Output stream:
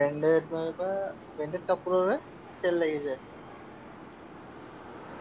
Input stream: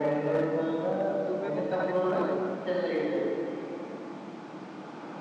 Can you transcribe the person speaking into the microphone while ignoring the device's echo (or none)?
তুমি মোক কালি ফোন কৰিবা।